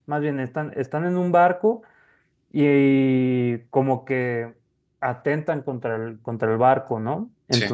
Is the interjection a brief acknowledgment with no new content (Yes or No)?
Yes